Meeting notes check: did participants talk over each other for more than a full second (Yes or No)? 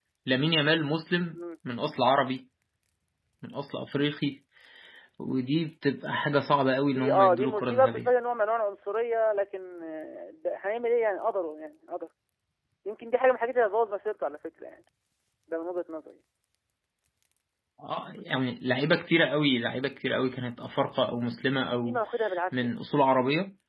Yes